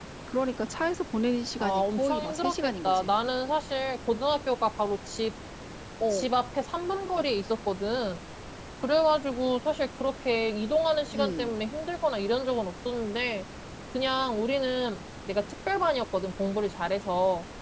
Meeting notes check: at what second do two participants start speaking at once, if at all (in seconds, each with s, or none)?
1.6 s